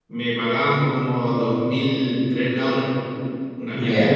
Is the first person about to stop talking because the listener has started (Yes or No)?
Yes